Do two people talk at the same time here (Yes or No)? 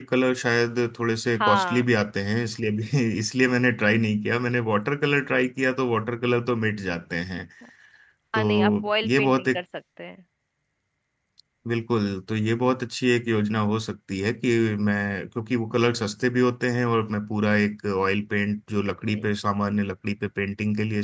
Yes